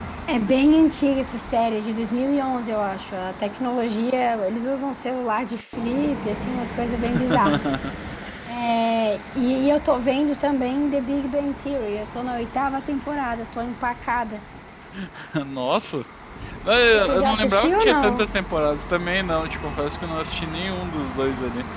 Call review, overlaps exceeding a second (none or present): present